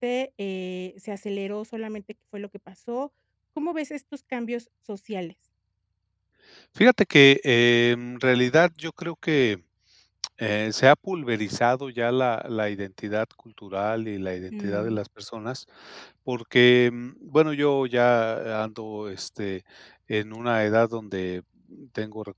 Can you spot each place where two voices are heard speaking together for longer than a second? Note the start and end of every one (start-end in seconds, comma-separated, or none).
none